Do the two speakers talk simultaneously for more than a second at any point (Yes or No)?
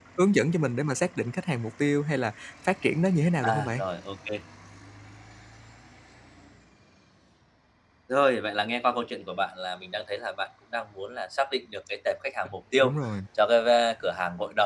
No